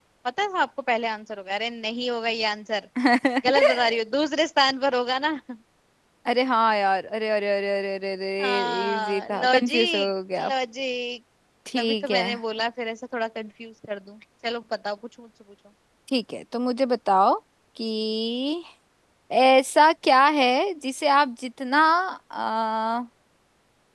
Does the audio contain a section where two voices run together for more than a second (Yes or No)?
Yes